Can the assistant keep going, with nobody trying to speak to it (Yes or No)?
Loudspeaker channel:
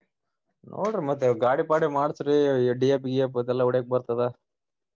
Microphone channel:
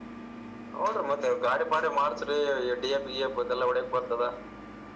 Yes